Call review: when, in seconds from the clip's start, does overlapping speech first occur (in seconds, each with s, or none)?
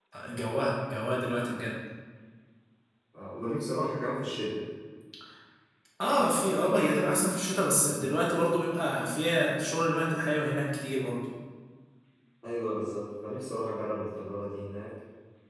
none